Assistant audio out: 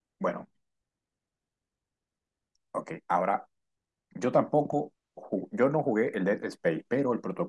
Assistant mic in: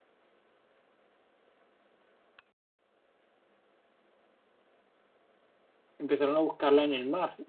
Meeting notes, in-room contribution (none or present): present